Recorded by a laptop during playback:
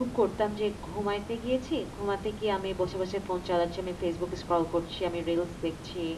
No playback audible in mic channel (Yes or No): Yes